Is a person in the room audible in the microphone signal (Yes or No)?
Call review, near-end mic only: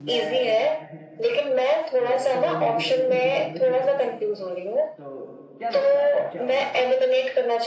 Yes